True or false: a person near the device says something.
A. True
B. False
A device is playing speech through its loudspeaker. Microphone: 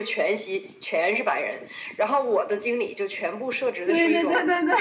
A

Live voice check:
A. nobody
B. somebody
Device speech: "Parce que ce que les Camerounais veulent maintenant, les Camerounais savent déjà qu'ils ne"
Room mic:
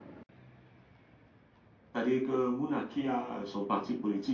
B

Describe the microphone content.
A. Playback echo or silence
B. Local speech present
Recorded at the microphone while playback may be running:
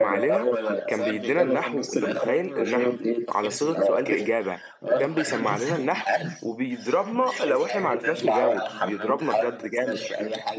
B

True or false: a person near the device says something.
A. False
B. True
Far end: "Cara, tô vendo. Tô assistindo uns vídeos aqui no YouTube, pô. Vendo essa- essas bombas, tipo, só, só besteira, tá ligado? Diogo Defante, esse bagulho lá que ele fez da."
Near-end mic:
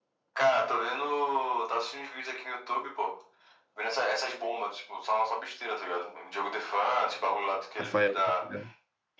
B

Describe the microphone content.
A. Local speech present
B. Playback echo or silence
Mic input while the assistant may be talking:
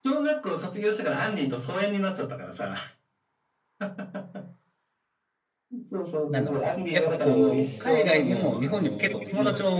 A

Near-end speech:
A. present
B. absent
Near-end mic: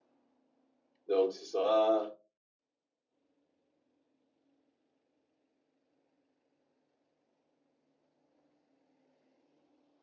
A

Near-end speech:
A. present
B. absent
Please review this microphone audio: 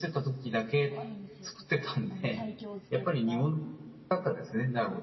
A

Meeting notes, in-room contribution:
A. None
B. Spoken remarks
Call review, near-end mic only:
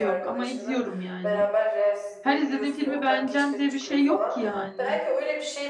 B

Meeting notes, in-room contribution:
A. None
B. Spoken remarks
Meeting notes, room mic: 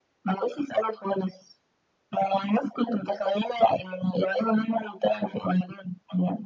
A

